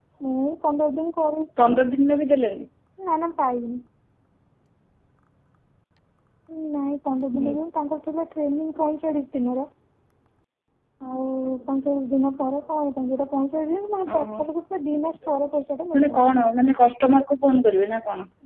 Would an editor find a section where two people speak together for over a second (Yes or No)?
No